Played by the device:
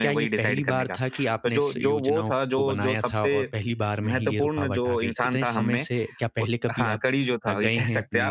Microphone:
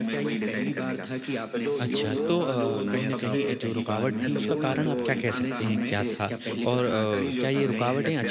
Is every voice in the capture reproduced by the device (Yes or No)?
No